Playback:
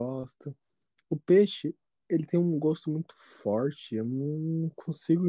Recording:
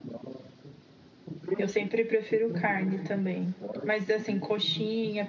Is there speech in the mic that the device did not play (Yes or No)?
Yes